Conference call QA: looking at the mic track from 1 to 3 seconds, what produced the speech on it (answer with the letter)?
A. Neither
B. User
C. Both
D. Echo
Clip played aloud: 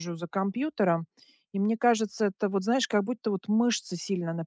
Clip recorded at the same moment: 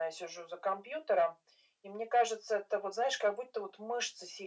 D